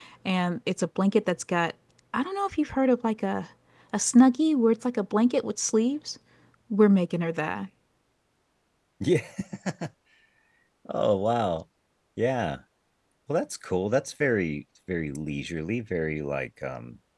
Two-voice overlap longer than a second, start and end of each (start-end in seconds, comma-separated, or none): none